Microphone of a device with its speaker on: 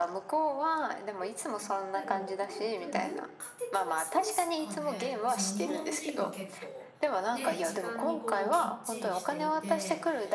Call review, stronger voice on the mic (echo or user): echo